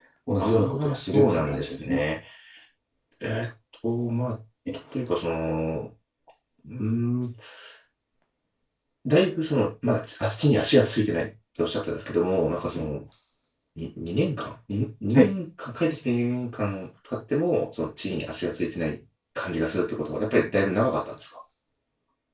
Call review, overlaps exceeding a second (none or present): present